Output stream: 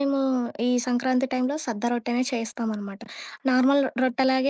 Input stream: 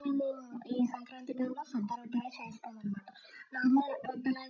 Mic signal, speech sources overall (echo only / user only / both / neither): echo only